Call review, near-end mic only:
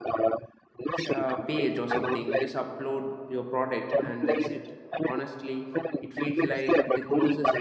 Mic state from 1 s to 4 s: both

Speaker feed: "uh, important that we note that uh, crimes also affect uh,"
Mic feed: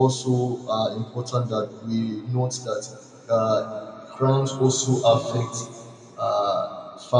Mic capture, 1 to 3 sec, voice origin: echo only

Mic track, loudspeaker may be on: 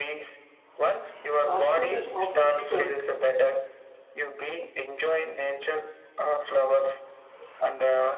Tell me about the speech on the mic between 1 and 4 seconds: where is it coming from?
both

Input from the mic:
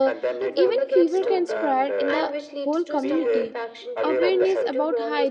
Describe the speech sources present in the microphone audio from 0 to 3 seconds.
both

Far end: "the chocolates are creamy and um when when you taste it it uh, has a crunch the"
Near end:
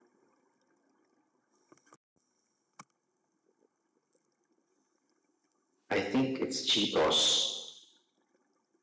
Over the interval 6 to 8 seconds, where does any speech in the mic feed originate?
user only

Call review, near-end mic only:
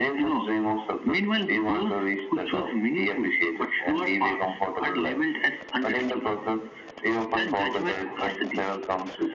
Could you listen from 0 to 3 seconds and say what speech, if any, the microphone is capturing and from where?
echo only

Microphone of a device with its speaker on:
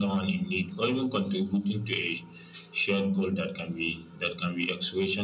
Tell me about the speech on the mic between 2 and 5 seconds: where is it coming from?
echo only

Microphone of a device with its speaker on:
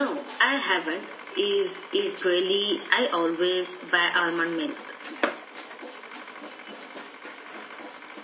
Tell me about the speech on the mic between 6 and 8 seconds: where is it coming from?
neither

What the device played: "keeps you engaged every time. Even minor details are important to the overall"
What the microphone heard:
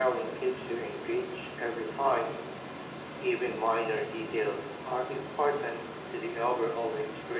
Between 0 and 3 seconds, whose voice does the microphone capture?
echo only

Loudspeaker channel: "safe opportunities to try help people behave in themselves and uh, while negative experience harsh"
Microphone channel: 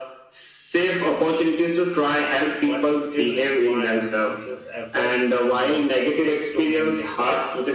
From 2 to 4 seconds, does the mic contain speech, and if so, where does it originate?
both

